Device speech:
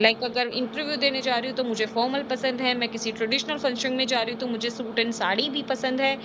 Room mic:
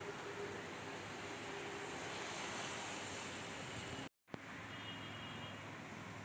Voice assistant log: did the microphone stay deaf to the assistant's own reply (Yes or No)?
Yes